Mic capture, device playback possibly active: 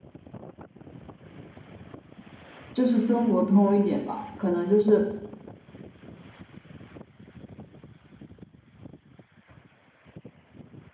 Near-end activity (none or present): present